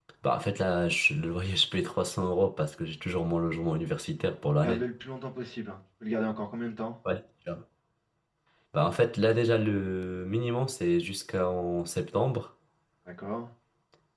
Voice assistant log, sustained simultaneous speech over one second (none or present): none